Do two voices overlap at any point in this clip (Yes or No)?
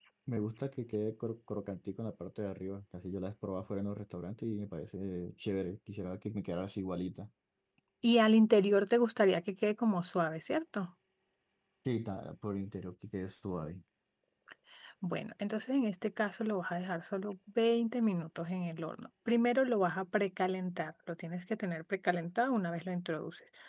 No